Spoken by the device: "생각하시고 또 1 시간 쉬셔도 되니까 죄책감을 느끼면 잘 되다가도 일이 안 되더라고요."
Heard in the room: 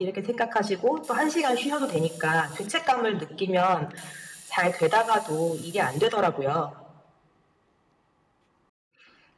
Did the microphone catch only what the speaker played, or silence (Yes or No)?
Yes